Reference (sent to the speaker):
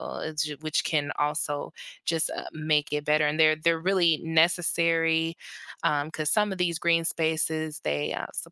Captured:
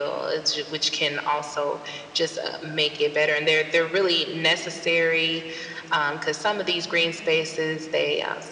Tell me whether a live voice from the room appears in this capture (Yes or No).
No